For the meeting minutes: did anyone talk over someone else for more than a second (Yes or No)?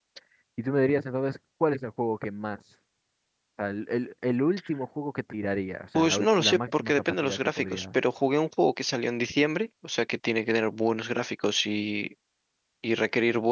Yes